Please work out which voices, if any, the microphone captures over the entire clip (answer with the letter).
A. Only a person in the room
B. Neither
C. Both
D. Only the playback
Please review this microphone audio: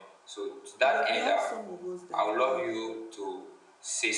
C